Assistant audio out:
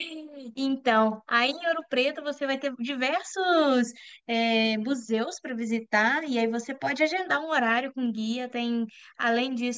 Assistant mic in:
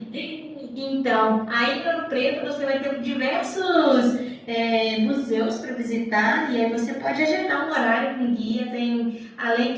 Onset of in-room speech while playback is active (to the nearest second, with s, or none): none